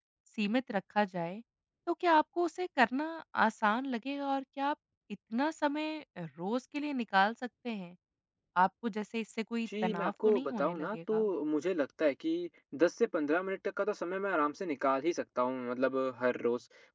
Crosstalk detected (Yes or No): Yes